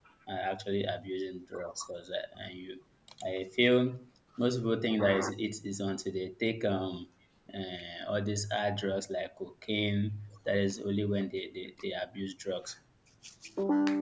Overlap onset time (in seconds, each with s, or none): none